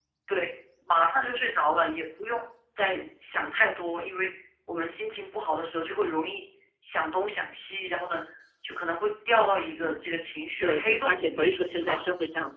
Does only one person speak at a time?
No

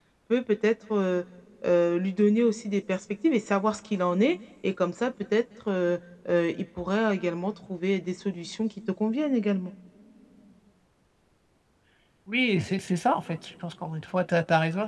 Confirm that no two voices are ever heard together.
Yes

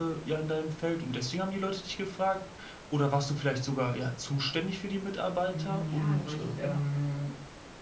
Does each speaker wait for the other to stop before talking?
No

